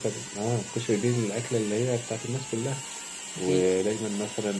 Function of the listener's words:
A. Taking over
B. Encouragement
B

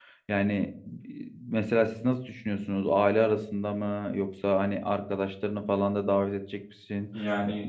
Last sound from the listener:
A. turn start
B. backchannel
B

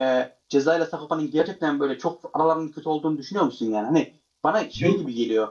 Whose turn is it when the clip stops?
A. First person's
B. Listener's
A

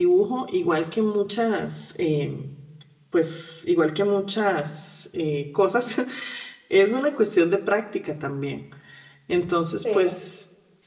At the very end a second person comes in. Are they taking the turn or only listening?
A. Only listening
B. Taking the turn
A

